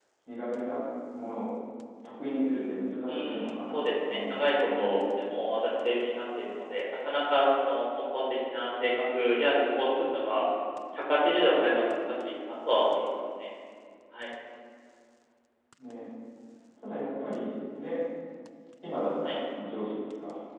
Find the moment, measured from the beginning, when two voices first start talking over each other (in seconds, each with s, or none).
3.1 s